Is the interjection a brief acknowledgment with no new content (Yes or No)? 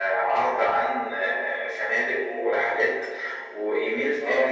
Yes